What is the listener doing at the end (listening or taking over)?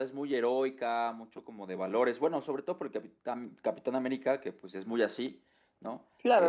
taking over